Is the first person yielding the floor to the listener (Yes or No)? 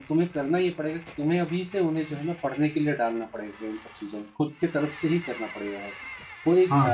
Yes